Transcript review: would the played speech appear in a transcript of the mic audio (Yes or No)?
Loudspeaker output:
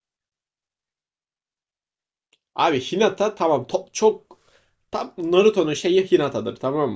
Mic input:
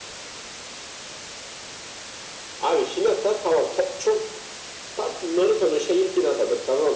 Yes